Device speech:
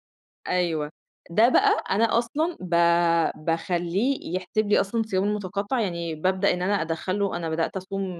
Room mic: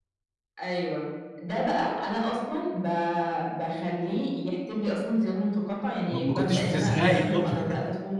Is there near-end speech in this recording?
Yes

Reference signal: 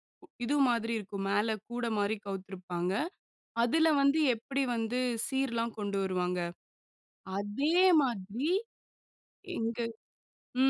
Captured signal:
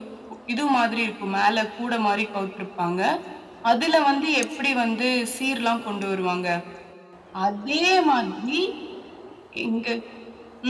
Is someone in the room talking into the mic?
No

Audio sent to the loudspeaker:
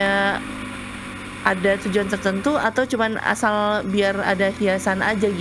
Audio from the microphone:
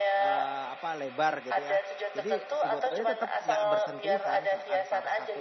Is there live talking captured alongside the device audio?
Yes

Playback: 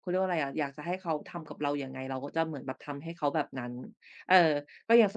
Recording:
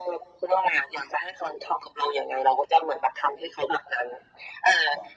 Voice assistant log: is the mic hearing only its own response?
Yes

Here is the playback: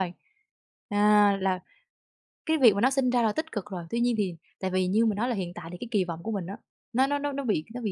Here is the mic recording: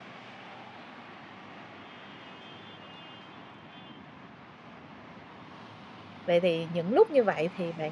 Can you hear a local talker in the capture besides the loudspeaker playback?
Yes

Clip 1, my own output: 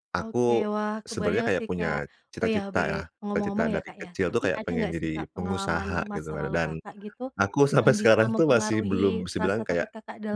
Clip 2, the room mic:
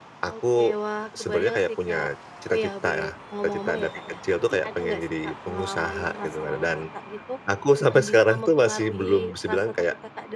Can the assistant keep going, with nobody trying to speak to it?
Yes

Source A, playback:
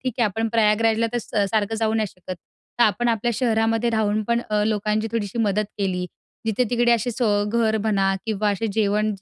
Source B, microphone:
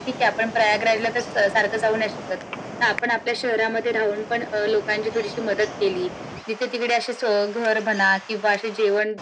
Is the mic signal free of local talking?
Yes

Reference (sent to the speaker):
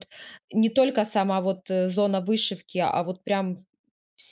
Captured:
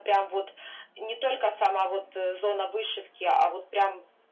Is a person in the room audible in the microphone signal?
No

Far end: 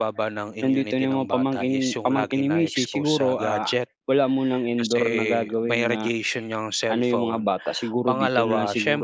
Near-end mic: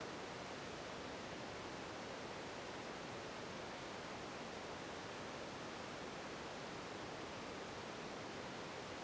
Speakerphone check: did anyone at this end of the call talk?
No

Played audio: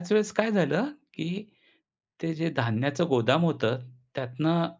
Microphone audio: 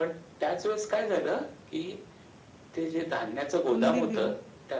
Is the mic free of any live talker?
No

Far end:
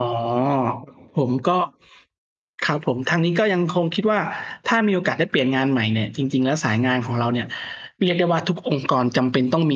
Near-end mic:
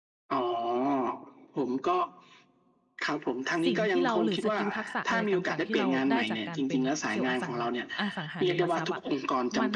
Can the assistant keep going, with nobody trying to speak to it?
No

